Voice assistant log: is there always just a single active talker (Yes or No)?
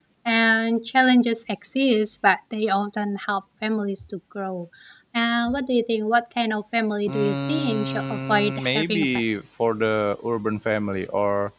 No